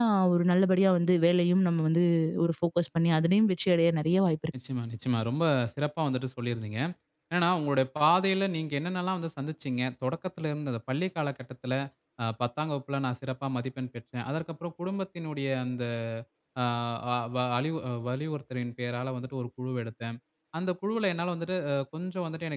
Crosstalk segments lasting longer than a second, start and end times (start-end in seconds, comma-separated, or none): none